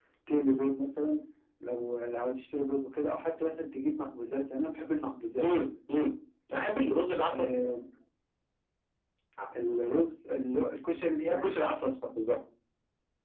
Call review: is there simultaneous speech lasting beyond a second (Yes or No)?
No